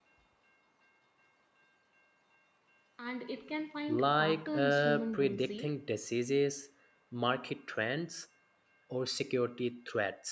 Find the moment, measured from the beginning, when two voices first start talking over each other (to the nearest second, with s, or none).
4 s